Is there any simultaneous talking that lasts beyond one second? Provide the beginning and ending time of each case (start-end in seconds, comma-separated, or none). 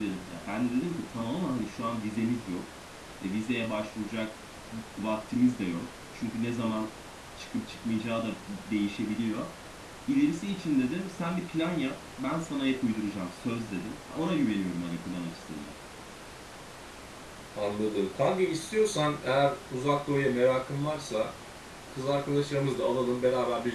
none